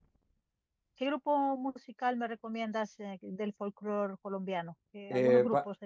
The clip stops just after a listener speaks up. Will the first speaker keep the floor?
No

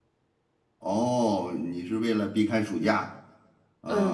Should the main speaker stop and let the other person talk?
Yes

